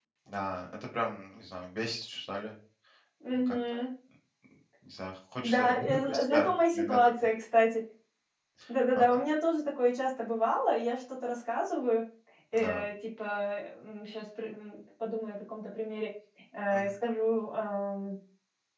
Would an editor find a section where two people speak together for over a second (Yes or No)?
Yes